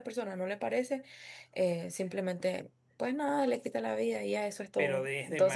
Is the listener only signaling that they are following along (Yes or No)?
No